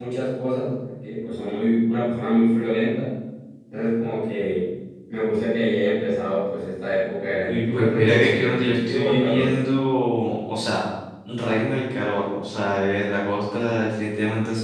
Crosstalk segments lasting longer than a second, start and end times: 7.4-9.5

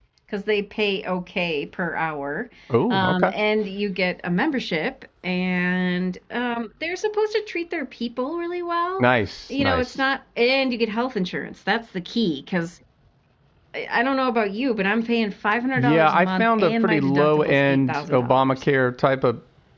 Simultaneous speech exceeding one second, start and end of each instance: 15.8-18.6

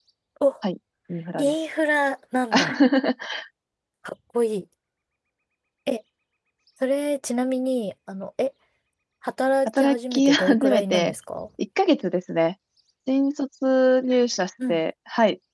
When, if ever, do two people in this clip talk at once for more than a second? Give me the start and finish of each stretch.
9.7-11.1

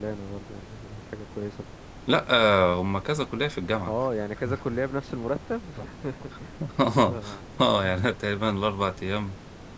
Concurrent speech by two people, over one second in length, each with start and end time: none

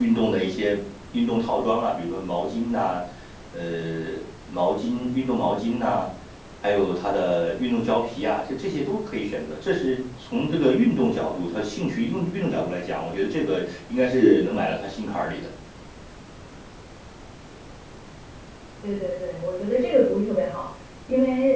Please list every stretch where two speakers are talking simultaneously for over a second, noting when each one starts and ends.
none

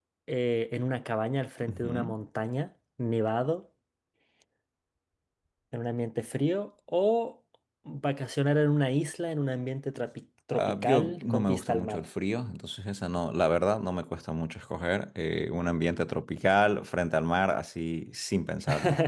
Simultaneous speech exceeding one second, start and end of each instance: 10.5-12.1

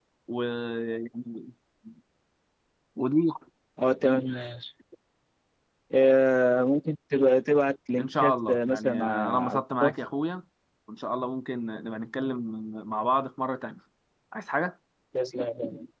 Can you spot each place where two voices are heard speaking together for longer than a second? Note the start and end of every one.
8.0-9.9

